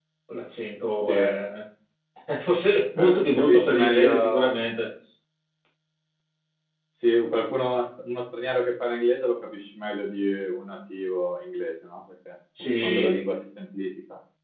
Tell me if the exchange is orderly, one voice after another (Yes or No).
No